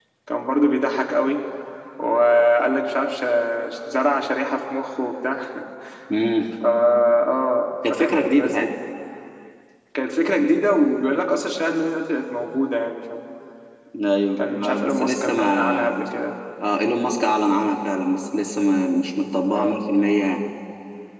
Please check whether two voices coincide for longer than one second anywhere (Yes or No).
Yes